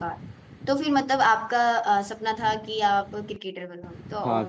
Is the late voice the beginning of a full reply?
Yes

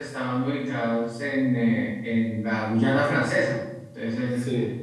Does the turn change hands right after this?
No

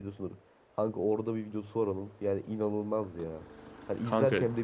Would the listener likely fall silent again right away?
Yes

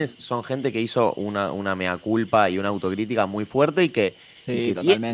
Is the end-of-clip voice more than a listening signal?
No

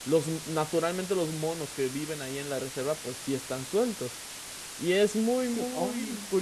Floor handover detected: No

